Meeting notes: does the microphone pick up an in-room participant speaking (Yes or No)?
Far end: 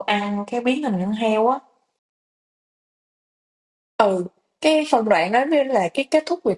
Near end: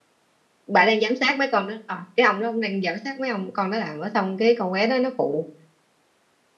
Yes